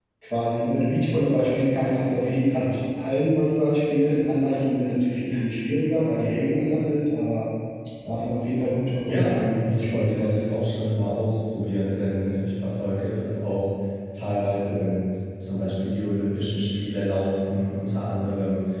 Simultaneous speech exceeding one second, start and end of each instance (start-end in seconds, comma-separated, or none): 9.1-10.4